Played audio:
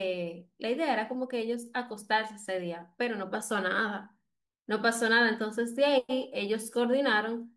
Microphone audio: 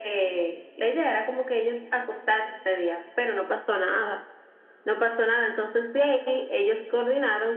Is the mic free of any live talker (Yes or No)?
Yes